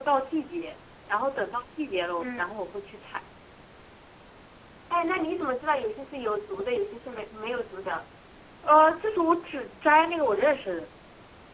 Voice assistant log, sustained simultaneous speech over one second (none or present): none